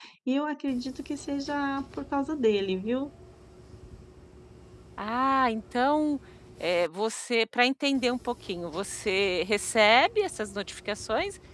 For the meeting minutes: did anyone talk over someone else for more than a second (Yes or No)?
No